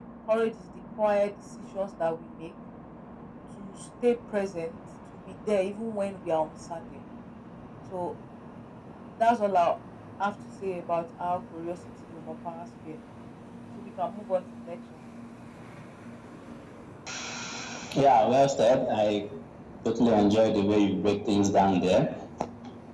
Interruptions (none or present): none